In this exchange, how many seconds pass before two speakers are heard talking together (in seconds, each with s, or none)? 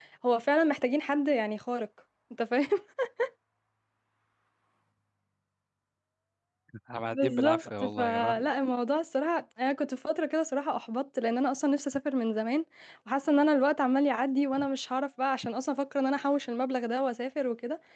7.1 s